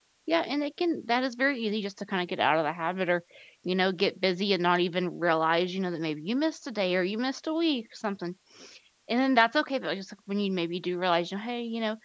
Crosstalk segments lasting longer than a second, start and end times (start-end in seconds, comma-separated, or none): none